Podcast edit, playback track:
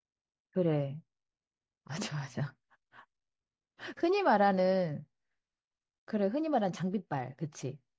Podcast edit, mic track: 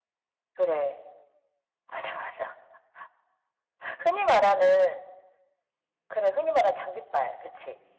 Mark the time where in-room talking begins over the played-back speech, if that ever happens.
none

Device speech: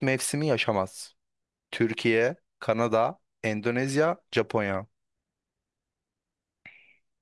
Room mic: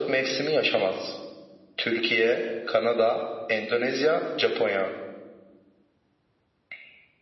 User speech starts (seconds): none

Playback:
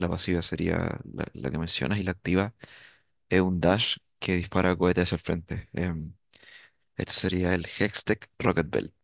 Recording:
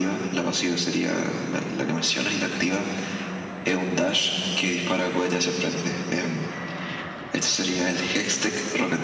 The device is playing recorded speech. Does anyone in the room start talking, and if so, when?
none

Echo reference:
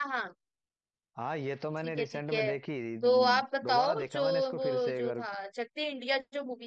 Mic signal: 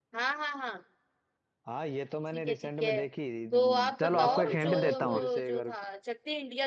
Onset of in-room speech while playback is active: 4.0 s

